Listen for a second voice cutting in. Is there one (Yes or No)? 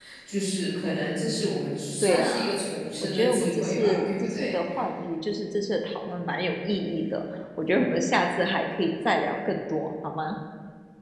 Yes